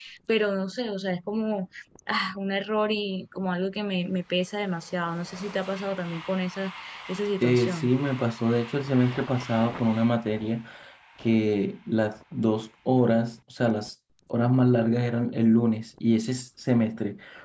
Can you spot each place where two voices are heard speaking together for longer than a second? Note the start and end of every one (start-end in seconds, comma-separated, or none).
none